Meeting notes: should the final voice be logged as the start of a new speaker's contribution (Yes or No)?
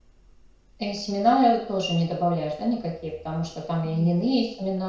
No